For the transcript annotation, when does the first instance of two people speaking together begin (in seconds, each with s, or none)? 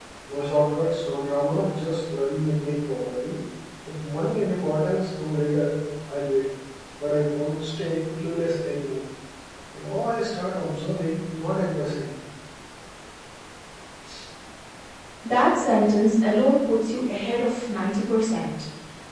none